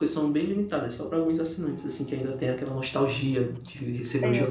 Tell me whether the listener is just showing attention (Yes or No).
No